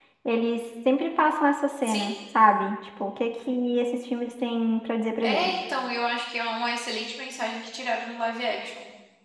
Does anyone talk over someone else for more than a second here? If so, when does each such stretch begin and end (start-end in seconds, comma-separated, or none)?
none